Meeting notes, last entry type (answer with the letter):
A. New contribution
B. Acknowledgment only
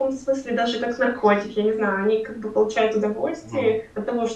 B